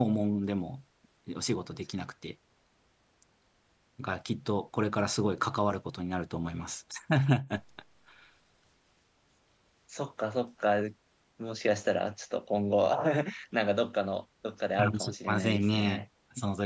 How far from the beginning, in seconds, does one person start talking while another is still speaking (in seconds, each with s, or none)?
14.8 s